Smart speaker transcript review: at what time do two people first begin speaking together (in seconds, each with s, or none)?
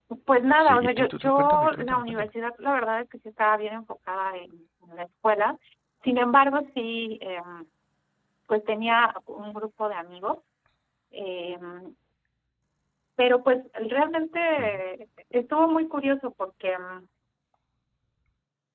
0.6 s